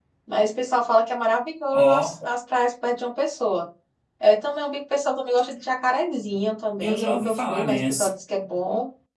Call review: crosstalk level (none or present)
present